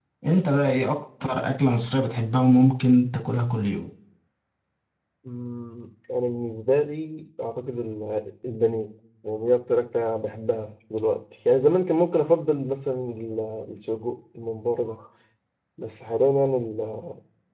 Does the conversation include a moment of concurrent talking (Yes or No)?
No